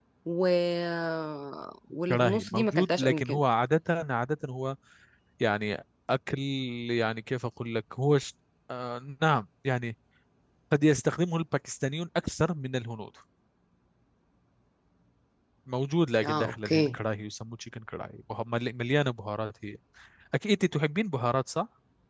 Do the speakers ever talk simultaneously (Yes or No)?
Yes